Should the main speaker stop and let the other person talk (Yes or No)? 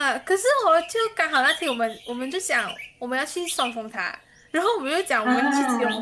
No